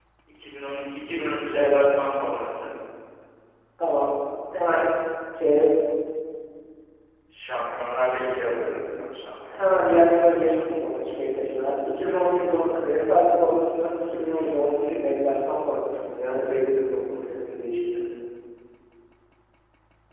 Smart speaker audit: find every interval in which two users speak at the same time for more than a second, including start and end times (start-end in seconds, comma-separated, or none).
9.5-11.4